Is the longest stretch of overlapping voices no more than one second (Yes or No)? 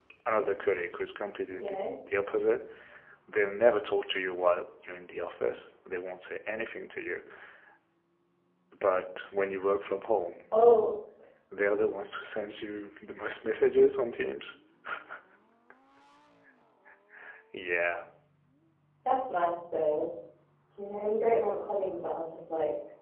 Yes